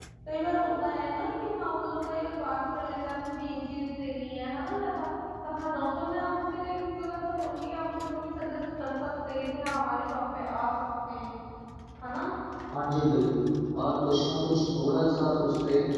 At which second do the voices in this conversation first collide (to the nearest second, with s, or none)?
none